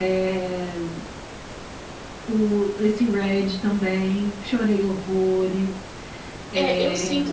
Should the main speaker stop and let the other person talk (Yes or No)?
Yes